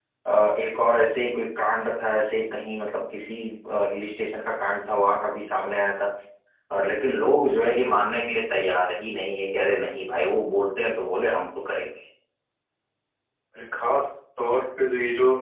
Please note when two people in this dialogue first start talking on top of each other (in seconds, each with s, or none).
none